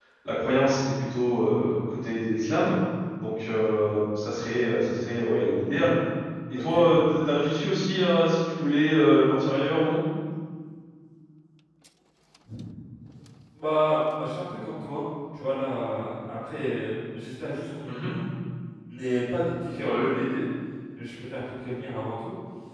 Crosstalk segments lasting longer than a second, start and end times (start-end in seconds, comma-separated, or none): none